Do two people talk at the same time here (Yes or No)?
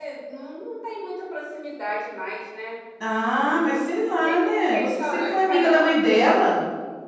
Yes